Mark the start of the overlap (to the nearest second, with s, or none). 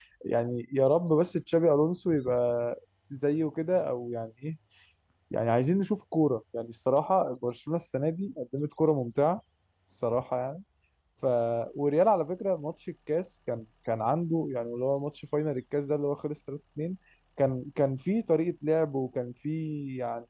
none